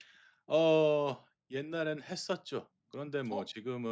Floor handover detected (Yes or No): No